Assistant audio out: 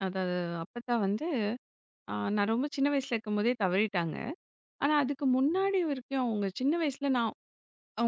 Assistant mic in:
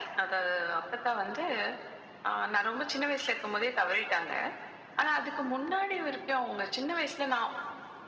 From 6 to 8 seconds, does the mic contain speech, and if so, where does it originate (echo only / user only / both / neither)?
echo only